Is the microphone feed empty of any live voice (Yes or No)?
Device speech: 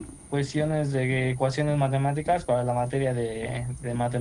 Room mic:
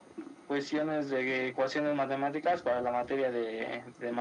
Yes